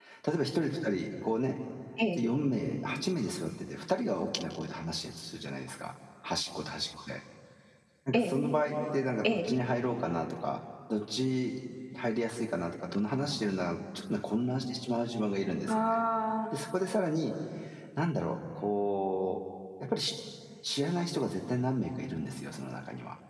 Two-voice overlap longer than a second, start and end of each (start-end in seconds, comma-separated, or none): none